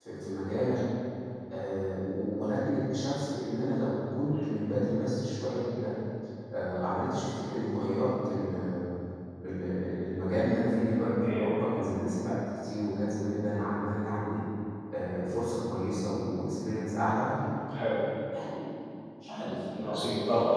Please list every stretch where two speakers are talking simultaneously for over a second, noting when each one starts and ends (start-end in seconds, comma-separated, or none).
none